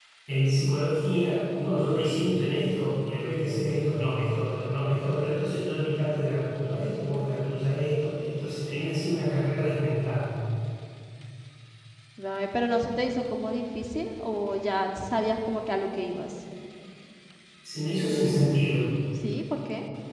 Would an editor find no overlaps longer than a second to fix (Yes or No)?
Yes